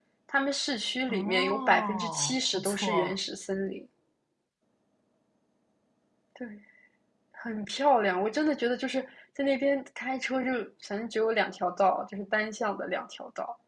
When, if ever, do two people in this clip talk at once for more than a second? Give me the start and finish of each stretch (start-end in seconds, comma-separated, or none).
1.1-3.2